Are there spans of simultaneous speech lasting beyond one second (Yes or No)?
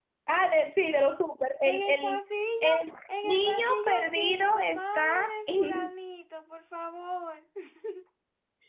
Yes